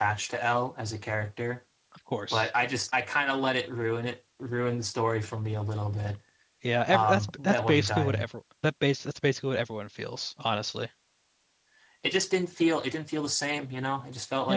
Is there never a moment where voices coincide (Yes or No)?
No